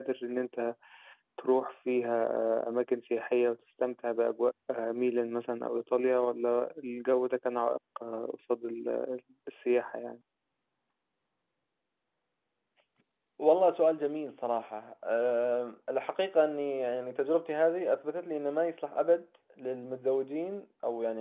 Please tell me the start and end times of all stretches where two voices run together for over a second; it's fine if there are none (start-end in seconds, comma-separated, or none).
none